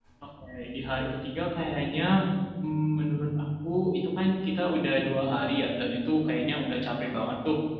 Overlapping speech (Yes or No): No